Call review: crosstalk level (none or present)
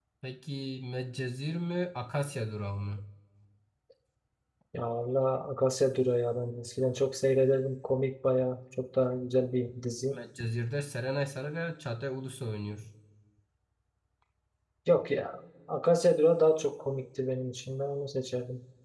none